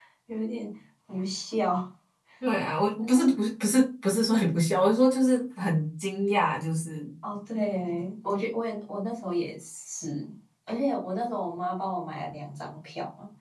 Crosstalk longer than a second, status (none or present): none